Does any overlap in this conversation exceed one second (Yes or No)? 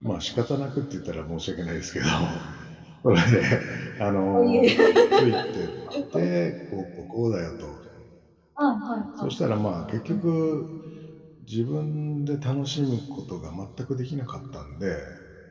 No